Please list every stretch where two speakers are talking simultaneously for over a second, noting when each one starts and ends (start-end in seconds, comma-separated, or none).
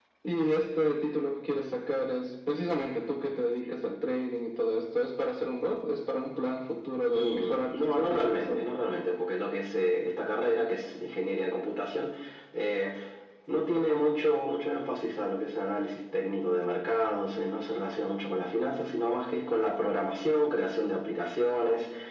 7.1-8.6